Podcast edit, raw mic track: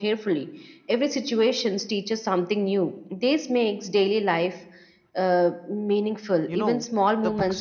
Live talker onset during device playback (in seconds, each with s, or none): 6.4 s